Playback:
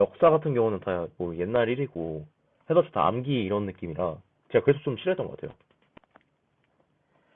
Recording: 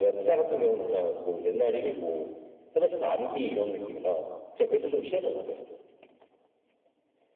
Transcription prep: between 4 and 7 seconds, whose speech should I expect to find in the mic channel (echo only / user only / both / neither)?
echo only